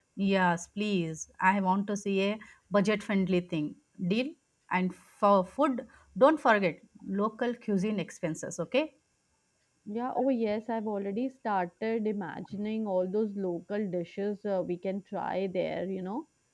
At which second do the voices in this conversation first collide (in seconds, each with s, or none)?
none